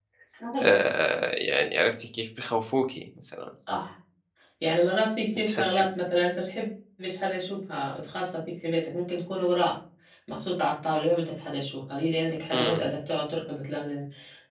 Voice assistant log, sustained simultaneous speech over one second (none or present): none